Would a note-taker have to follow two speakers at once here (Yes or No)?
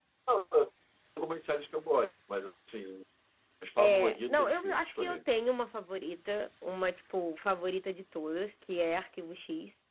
Yes